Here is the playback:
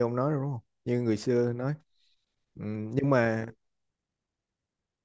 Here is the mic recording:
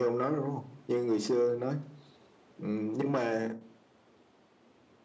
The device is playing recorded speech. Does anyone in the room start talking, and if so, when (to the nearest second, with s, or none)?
none